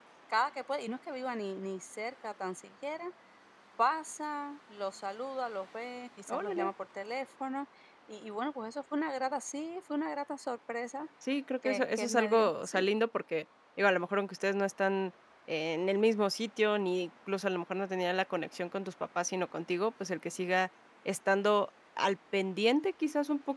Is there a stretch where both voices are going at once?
Yes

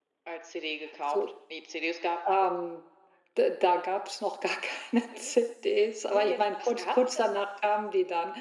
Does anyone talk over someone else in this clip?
Yes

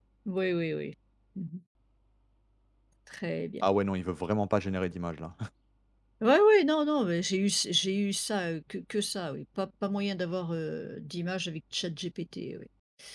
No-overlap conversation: Yes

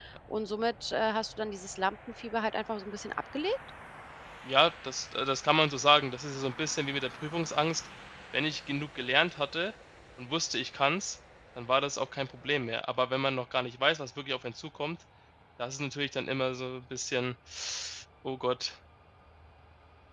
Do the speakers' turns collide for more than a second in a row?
No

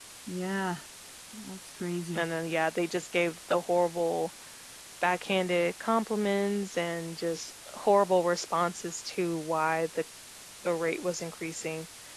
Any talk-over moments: No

